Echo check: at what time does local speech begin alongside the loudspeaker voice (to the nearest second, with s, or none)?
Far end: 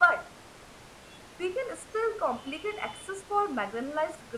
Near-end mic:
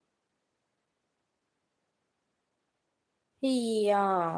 3 s